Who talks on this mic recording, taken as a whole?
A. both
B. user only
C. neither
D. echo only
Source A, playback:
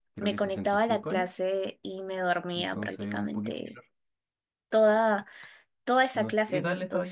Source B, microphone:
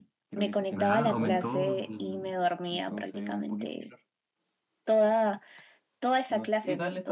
A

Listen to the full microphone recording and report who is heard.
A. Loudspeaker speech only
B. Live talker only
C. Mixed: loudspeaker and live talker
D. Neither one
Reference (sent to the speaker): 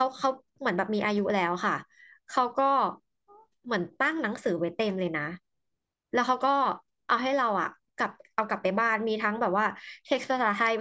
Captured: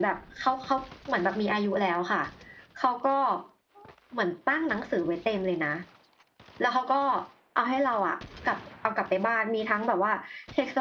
A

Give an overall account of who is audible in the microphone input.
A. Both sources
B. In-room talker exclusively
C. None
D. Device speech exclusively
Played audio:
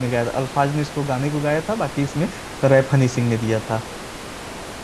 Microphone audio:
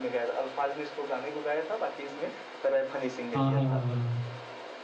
A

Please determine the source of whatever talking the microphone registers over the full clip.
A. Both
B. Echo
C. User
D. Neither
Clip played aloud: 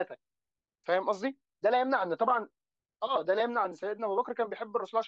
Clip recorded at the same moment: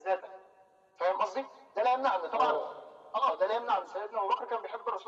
A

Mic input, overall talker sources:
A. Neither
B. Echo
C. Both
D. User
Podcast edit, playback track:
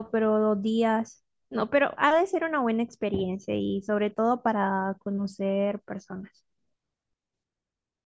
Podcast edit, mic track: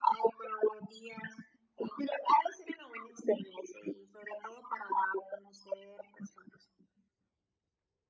B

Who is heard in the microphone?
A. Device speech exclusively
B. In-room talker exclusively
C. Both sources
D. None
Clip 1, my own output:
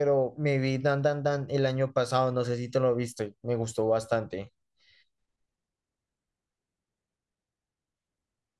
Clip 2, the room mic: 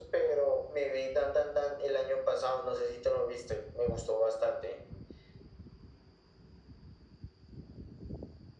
A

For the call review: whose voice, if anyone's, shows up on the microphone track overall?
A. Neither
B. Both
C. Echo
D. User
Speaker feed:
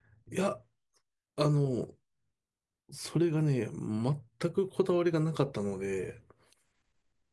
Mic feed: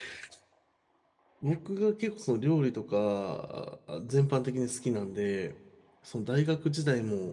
D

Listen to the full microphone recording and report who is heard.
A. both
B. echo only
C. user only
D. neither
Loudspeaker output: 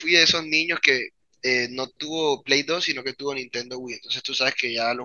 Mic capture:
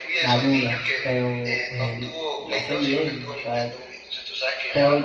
A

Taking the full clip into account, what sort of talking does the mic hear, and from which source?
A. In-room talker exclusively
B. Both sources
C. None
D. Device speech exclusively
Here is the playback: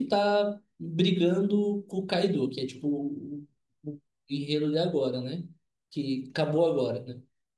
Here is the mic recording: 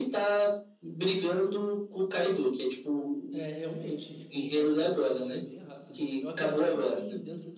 B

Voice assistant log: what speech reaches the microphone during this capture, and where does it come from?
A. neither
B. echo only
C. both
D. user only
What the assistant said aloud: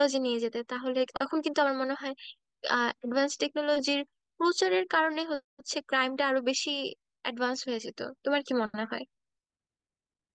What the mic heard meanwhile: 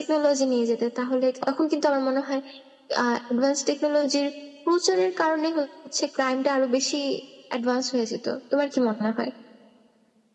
B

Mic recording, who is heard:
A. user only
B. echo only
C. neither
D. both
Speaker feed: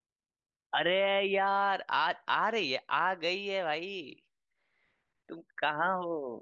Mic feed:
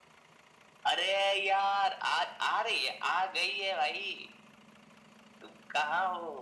B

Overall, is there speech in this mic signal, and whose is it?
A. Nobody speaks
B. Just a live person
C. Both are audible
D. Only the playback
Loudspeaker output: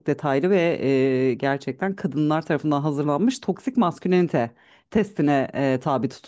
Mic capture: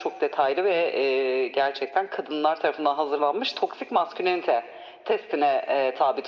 D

